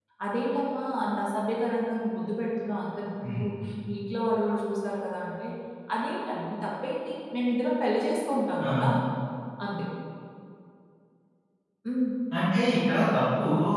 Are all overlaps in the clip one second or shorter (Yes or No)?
Yes